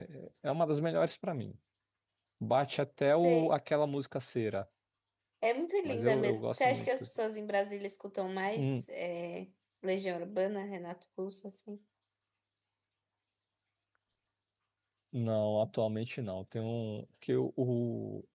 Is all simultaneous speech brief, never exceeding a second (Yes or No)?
No